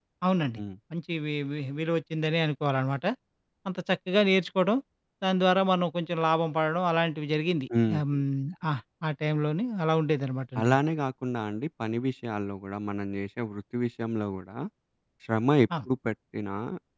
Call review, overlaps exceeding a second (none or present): none